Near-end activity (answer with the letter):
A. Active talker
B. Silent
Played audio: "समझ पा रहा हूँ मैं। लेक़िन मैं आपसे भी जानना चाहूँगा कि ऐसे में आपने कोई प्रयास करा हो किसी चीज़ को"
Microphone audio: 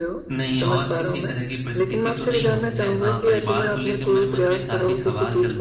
A